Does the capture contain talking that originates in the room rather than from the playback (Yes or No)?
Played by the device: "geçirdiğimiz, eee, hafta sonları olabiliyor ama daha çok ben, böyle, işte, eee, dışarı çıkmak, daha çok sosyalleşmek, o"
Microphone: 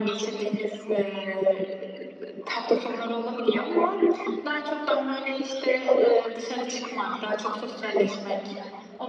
No